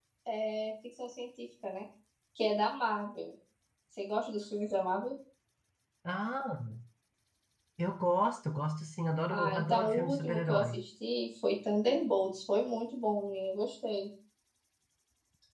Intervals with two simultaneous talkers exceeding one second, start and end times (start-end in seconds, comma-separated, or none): 9.3-10.8